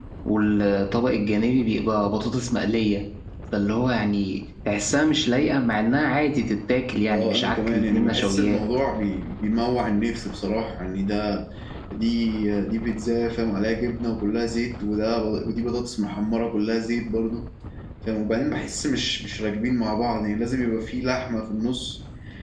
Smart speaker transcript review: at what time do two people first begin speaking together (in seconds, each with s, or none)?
7.1 s